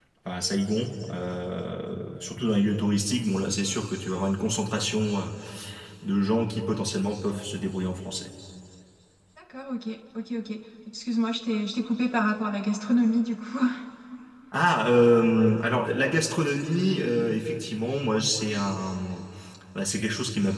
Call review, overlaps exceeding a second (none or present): none